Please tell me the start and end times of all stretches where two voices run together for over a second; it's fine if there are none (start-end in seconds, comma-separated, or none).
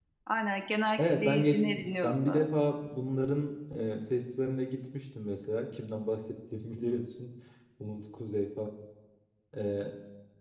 1.0-2.5